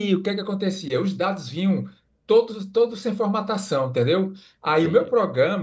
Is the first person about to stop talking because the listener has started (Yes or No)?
No